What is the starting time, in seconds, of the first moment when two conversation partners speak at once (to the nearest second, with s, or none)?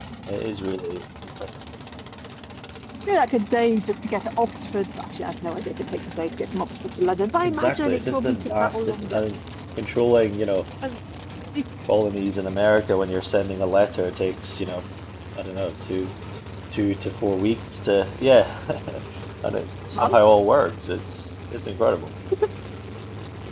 7 s